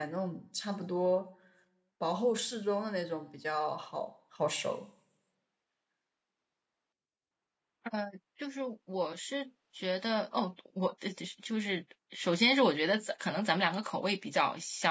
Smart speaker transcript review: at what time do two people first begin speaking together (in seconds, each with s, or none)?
none